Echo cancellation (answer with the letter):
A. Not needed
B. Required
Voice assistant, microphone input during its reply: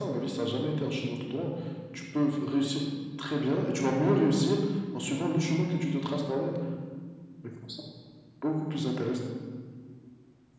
B